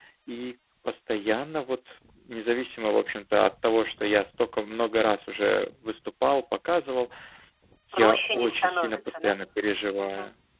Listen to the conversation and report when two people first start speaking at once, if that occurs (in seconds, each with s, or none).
7.9 s